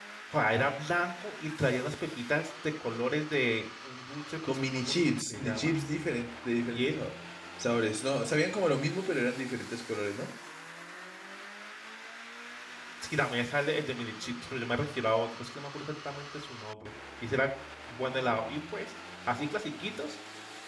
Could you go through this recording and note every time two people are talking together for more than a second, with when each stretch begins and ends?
4.5-5.7

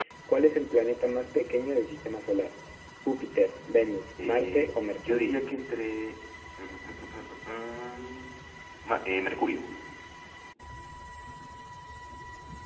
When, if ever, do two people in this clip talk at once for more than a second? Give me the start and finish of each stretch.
4.2-5.4

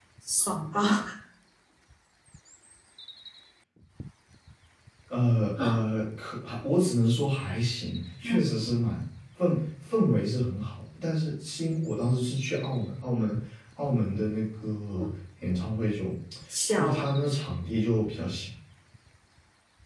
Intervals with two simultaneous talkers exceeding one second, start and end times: none

